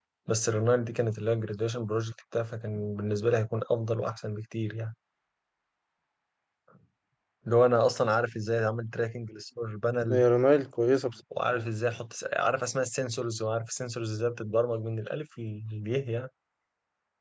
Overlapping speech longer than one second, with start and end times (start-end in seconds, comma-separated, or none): none